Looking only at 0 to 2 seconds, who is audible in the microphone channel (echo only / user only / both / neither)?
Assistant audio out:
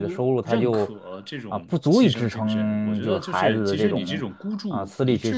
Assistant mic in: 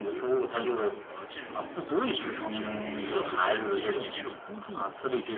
echo only